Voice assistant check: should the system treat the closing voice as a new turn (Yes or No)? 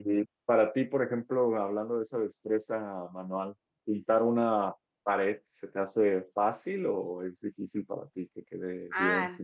Yes